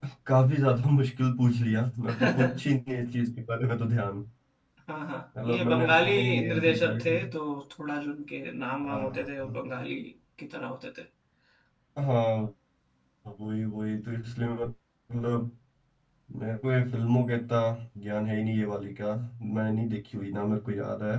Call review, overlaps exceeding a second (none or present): present